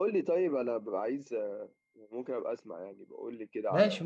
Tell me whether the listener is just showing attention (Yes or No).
No